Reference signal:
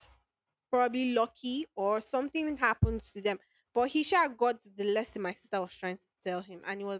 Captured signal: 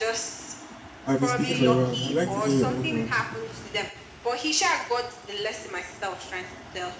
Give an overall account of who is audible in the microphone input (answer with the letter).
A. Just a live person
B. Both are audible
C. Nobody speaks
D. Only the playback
B